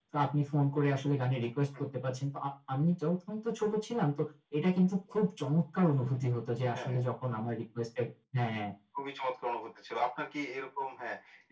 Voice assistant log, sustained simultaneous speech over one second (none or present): none